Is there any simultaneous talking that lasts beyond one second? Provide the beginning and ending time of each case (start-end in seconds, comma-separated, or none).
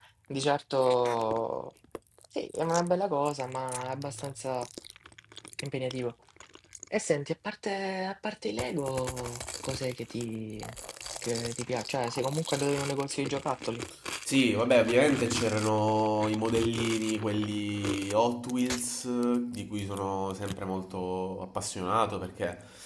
none